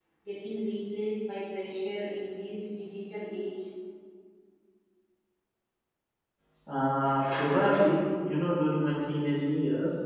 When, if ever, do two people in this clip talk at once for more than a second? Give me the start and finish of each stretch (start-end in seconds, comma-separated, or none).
none